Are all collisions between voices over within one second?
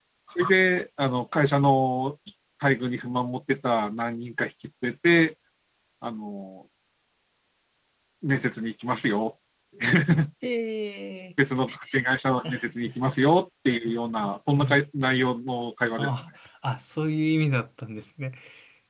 Yes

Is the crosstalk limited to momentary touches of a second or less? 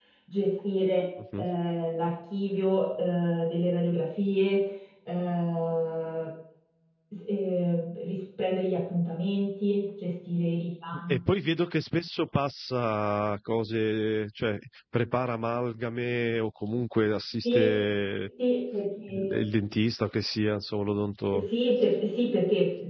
Yes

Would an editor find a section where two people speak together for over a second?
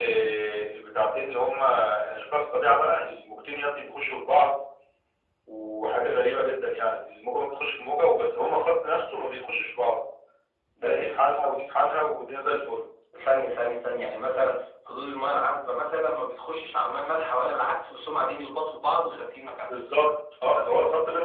No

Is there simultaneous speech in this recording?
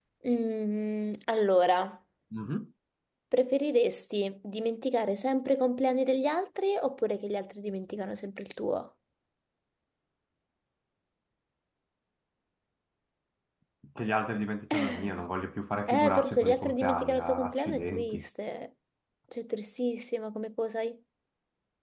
Yes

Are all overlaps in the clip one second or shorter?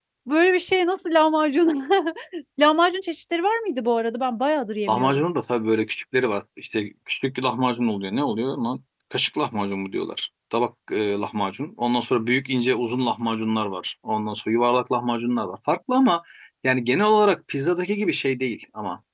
Yes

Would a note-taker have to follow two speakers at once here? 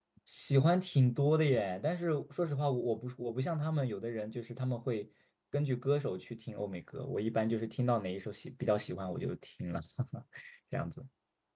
No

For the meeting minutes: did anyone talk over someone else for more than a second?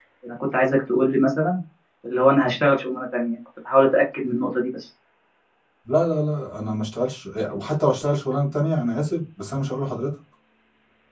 No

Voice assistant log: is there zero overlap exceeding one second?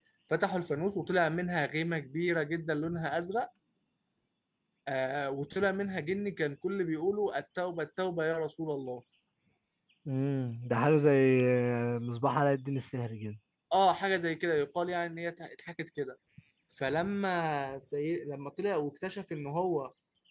Yes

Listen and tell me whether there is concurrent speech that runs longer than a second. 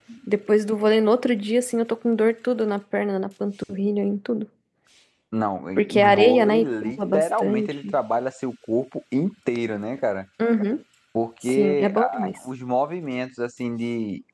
Yes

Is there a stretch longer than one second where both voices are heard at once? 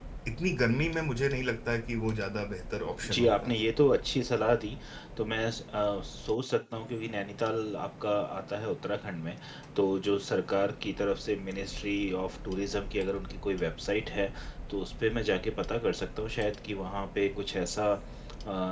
No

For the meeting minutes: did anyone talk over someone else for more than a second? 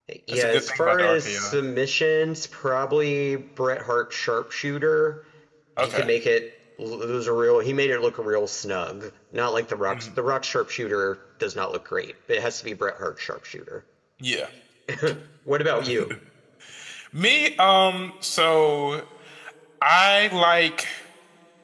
Yes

